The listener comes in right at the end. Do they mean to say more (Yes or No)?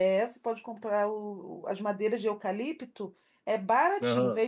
No